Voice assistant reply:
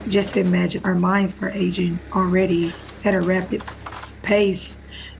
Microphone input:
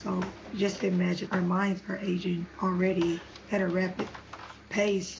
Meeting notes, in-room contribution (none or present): none